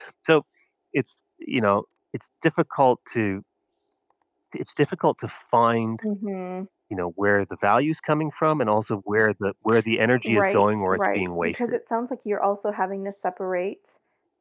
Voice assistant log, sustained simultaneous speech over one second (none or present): present